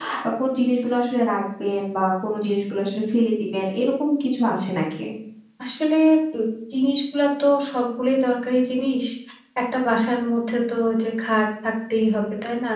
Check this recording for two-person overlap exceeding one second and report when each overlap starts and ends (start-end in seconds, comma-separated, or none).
none